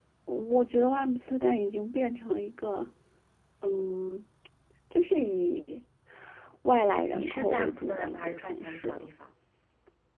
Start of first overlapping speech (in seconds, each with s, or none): 7.1 s